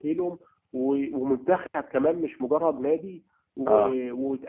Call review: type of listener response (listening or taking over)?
listening